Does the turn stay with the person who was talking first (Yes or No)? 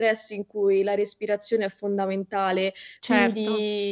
Yes